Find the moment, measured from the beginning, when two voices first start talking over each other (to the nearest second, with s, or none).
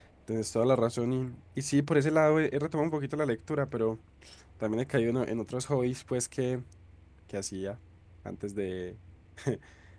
none